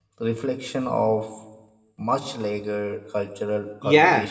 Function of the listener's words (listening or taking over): taking over